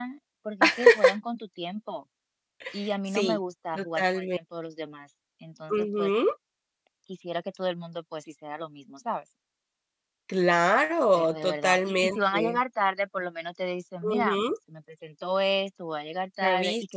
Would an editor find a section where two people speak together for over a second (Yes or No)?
Yes